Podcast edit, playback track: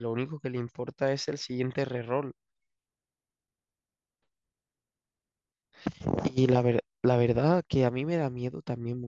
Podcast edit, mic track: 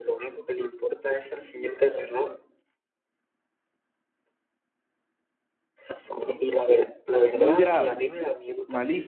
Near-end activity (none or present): present